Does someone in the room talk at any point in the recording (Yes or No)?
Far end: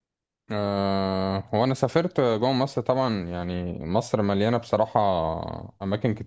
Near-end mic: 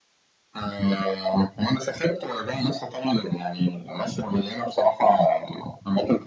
No